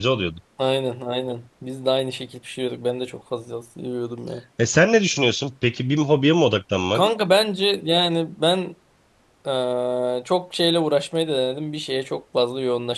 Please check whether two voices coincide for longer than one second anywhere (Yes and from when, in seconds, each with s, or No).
No